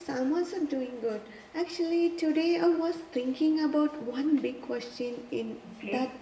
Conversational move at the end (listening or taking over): listening